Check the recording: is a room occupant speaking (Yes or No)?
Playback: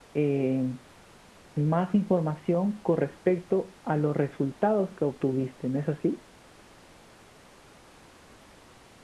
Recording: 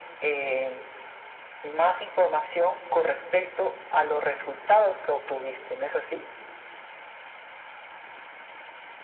No